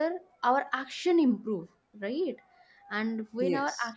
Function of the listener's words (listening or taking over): listening